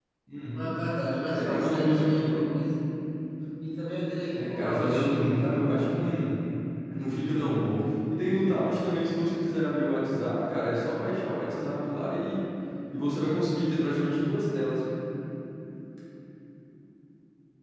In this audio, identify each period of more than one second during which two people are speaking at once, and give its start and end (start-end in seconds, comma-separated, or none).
1.3-2.5, 4.4-5.6